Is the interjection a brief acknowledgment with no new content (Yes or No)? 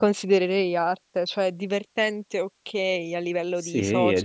No